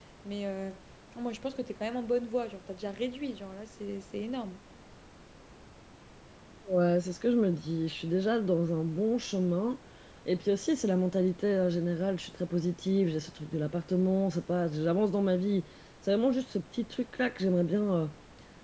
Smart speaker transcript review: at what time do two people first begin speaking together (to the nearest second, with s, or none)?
none